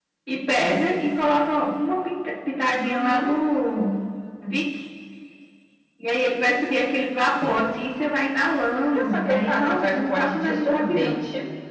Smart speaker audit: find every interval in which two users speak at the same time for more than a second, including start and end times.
8.9-11.1

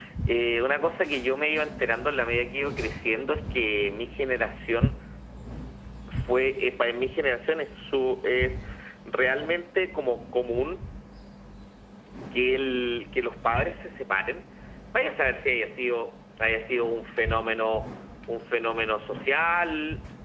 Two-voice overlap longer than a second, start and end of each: none

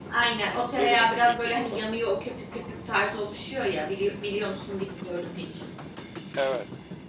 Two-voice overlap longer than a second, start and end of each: 0.5-1.9

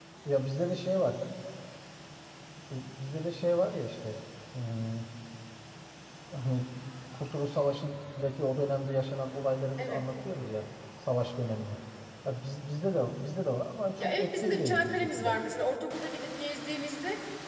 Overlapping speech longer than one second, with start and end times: 14.0-15.3

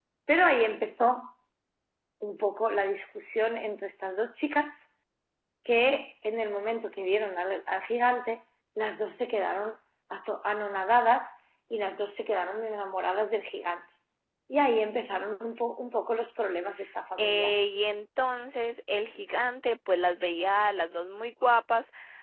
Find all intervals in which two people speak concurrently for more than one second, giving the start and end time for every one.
none

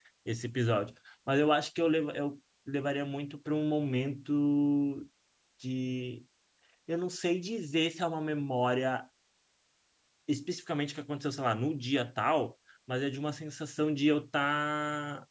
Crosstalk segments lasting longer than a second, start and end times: none

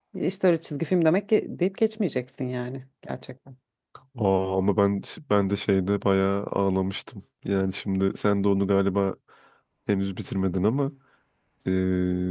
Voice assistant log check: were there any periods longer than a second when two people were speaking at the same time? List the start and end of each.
none

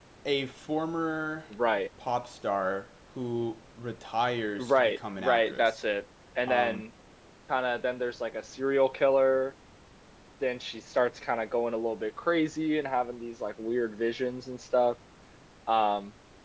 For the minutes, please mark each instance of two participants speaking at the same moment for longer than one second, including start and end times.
4.6-5.8

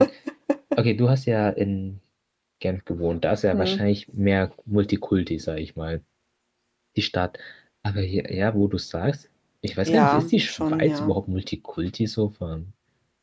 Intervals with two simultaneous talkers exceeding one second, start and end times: 9.8-11.2

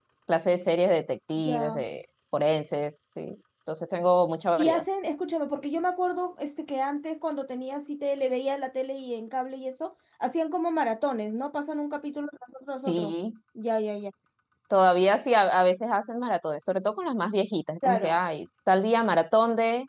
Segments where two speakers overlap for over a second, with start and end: none

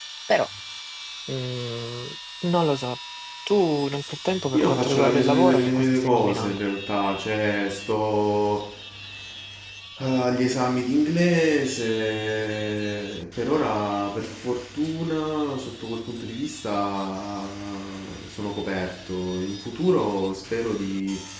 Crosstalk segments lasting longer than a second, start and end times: 4.5-6.6

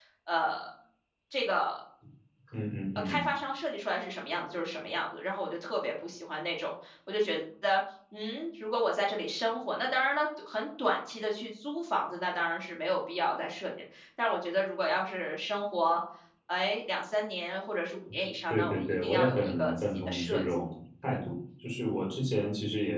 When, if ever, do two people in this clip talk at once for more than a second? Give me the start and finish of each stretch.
18.5-20.4

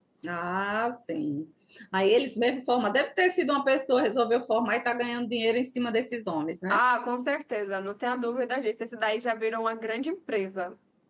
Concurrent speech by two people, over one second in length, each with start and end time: none

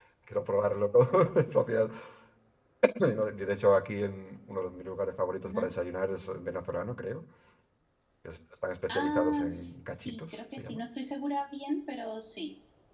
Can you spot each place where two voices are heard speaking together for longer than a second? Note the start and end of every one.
8.9-10.8

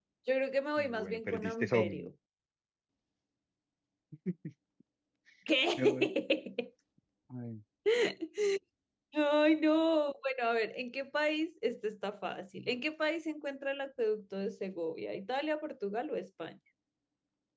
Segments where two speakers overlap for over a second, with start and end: 0.8-2.1

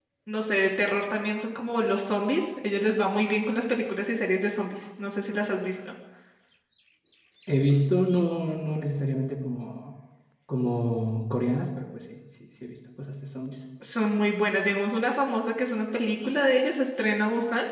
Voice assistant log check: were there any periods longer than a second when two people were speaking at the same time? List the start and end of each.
none

